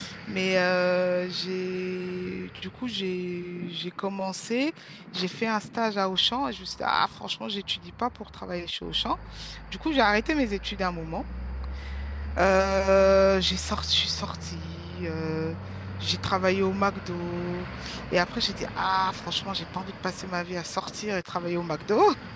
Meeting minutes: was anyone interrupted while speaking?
No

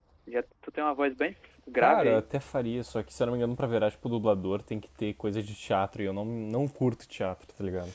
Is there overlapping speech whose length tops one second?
No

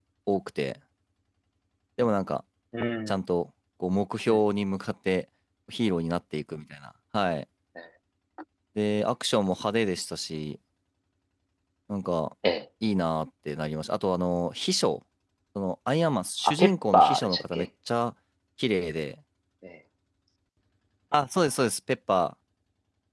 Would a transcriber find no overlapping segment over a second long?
No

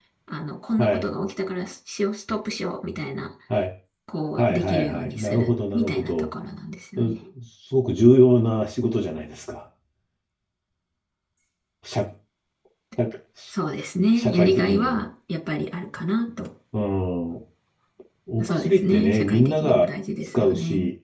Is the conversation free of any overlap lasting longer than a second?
No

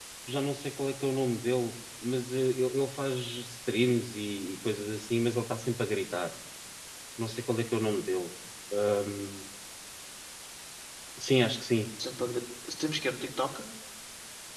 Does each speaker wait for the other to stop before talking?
Yes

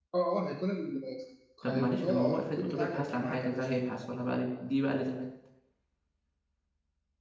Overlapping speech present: Yes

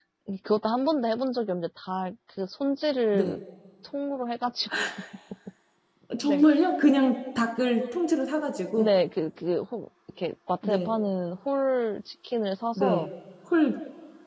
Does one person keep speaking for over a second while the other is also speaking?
No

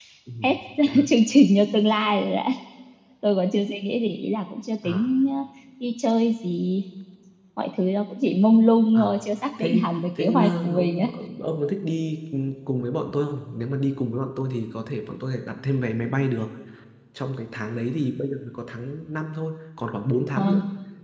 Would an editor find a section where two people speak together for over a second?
Yes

